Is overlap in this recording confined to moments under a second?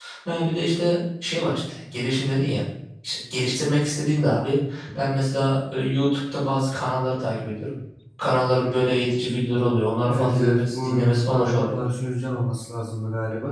No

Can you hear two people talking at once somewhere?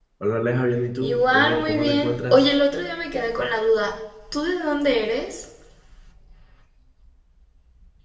Yes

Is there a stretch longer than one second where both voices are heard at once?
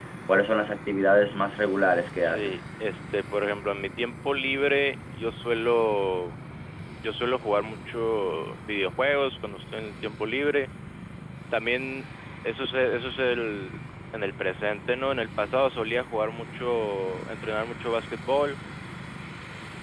No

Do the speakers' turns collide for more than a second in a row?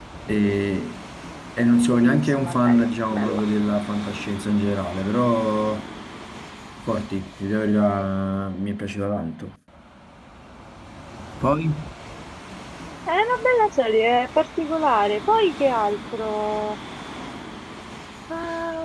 Yes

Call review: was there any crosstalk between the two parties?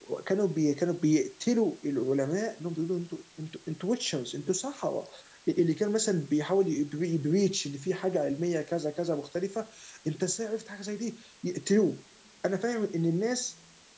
No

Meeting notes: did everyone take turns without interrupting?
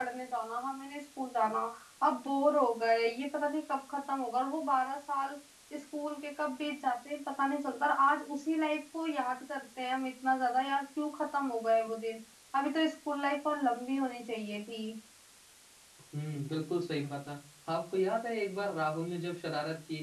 Yes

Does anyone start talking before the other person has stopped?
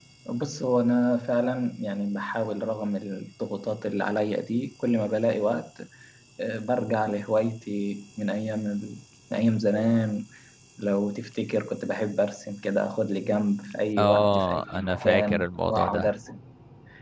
Yes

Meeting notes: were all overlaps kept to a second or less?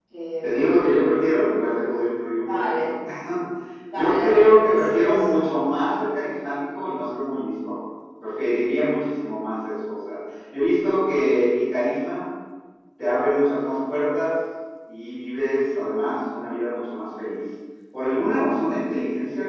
No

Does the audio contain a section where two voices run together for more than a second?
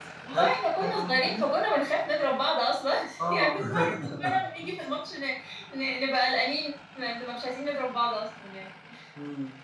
Yes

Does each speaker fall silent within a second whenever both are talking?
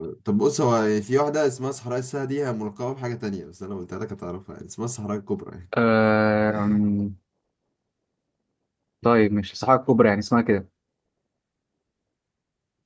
Yes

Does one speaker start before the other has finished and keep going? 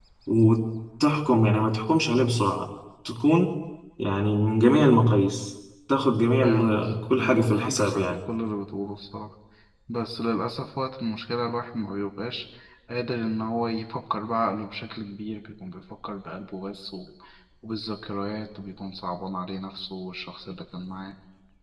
Yes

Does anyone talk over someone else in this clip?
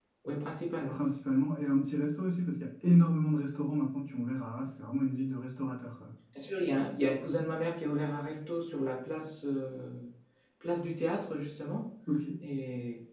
No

